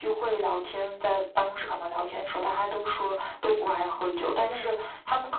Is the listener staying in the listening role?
Yes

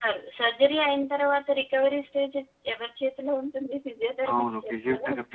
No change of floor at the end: No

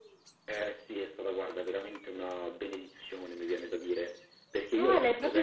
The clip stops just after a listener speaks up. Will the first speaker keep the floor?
No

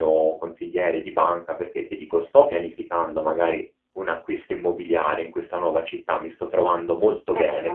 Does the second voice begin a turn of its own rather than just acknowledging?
No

